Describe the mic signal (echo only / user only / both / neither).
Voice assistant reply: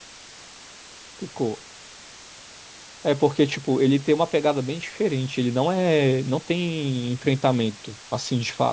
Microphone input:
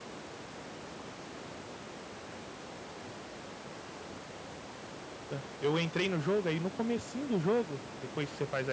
user only